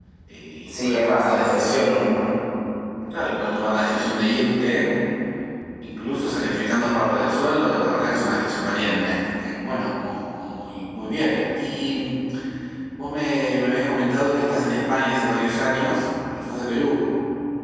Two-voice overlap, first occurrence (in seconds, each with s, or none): 0.7 s